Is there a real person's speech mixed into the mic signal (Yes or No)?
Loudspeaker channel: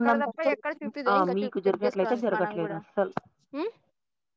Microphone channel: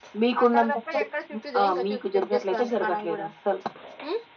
No